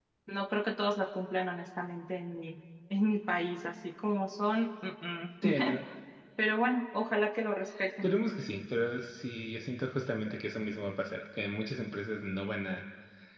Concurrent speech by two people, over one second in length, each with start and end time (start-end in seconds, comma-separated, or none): none